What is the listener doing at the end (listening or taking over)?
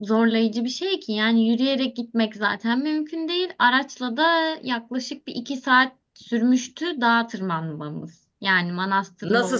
taking over